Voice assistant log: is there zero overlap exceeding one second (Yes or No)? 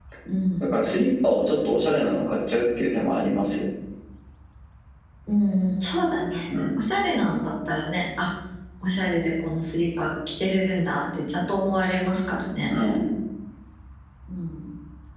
Yes